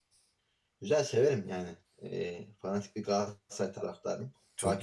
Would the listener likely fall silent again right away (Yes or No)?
No